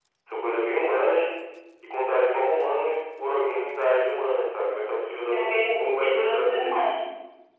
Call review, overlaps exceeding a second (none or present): present